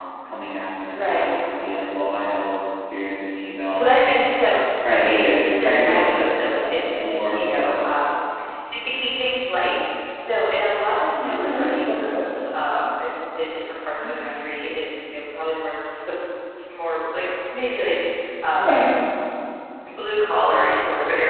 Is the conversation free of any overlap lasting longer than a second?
No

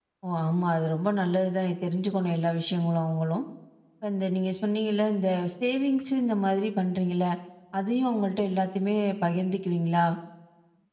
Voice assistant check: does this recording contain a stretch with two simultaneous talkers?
No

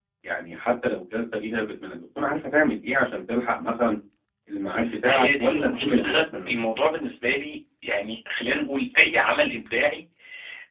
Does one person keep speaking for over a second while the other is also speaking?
Yes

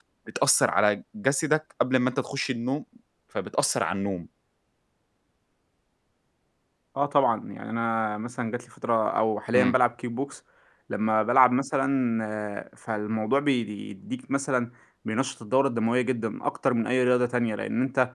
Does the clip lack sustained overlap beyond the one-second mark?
Yes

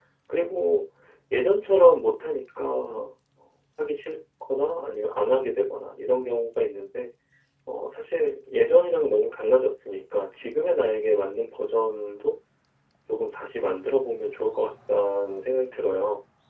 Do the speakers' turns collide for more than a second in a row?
No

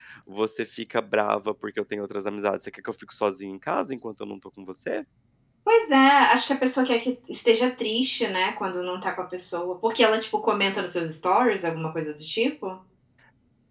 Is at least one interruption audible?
No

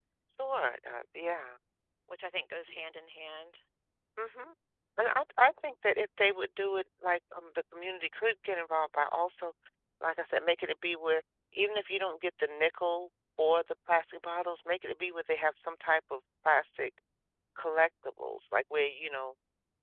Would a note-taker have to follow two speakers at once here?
No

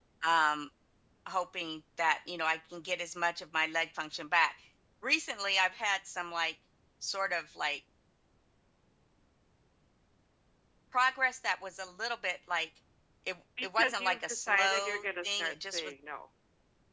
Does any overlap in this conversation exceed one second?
Yes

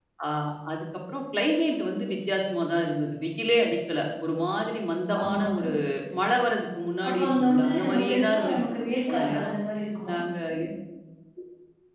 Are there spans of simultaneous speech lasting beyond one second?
Yes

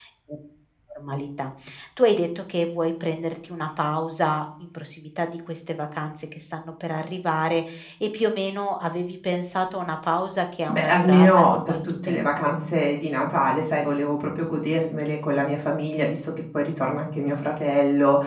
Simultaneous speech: Yes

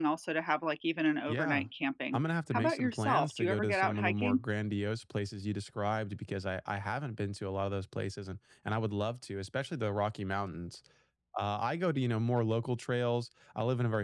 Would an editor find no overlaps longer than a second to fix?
No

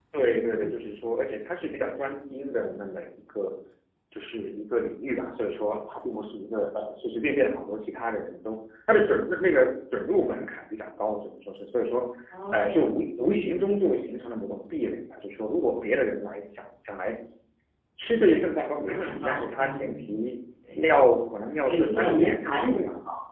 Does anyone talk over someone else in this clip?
Yes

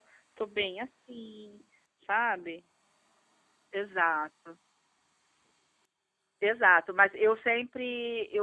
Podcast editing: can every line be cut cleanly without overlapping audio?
Yes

